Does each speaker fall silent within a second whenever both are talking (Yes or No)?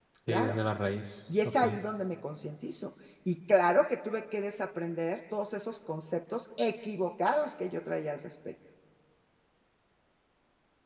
Yes